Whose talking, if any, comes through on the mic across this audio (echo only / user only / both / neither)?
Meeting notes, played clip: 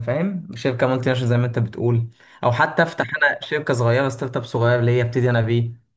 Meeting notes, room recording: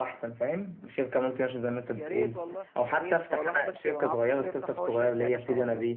both